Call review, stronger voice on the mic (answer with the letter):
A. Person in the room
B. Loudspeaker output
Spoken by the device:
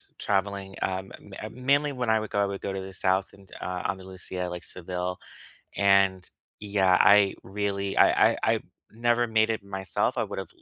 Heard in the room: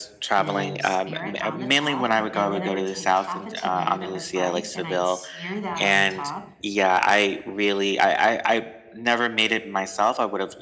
B